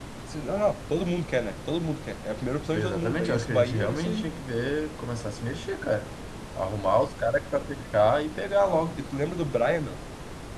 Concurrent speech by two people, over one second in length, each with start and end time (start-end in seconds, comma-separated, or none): 2.7-4.3